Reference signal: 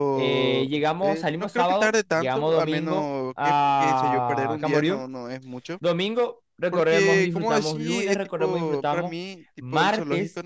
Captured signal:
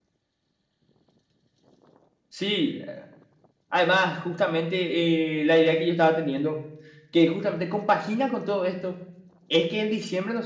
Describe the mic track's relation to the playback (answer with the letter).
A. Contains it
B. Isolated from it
B